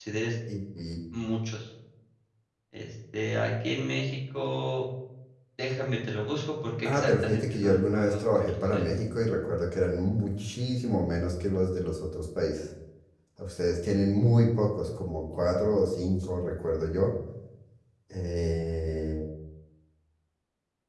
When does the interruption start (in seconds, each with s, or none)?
6.8 s